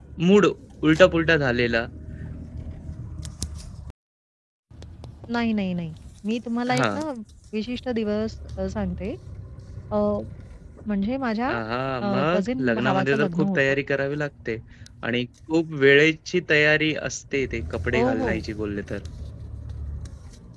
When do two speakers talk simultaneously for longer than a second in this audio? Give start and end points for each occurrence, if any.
12.0-13.6

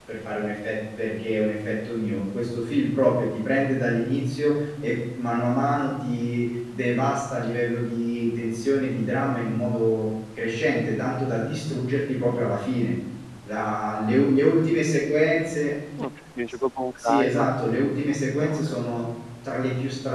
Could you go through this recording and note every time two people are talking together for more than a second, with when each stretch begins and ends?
17.0-18.8

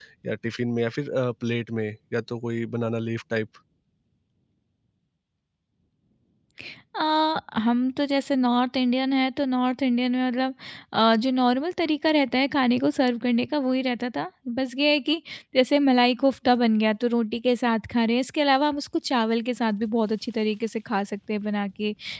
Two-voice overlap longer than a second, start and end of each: none

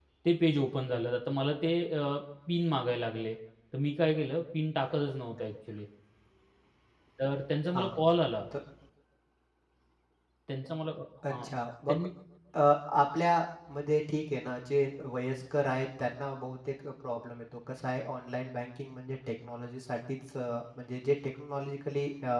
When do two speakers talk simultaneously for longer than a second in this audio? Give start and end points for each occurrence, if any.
none

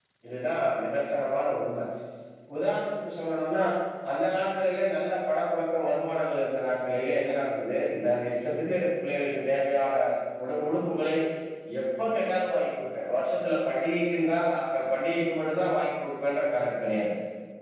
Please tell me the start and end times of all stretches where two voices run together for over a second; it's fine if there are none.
none

